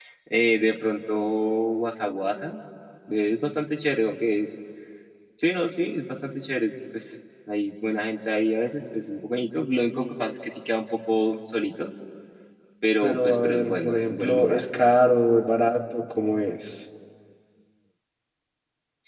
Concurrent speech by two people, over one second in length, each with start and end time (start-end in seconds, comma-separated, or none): 13.0-14.7